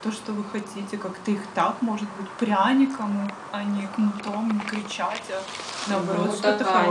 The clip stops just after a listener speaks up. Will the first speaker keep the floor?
No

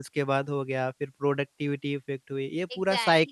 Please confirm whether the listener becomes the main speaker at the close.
Yes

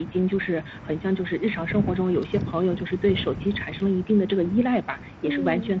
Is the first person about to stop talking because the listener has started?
No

